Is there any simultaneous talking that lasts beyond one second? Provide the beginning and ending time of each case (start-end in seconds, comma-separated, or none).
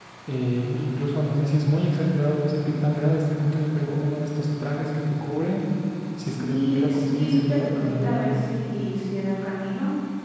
6.2-8.3